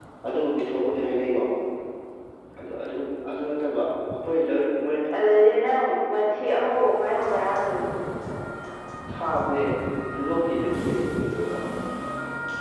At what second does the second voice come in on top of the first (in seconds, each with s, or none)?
none